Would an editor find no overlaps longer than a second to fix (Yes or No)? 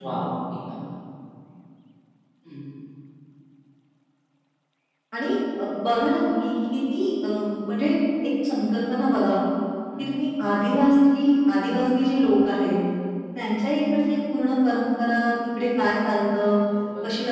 Yes